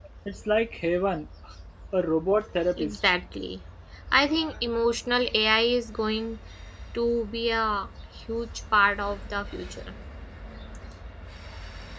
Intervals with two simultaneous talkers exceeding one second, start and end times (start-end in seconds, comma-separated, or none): none